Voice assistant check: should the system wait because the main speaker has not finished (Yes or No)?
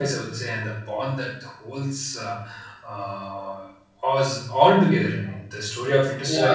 No